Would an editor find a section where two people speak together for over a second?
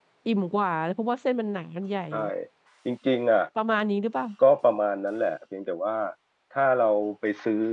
No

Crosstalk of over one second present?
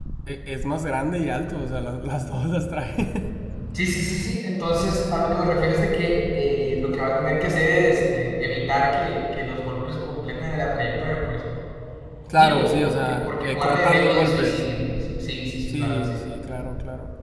Yes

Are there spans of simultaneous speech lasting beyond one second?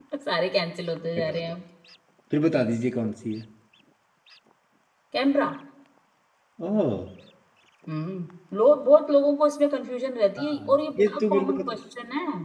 Yes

